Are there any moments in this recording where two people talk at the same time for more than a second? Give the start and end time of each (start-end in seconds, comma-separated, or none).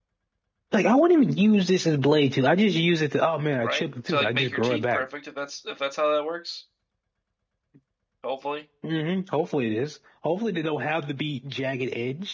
3.6-5.1